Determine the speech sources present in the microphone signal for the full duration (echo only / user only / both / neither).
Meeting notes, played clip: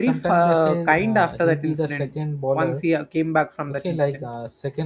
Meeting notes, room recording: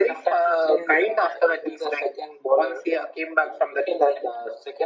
echo only